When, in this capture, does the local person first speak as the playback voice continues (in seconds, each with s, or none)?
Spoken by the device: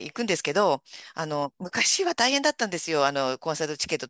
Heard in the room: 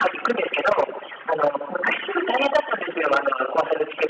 none